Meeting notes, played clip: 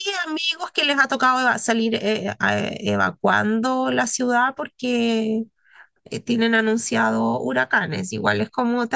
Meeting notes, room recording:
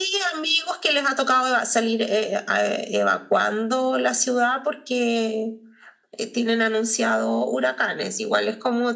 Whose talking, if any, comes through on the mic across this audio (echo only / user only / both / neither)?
echo only